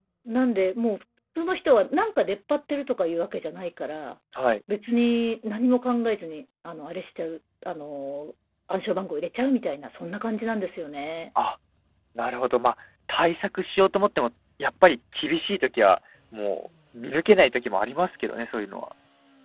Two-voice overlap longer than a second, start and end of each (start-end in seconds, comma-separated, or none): none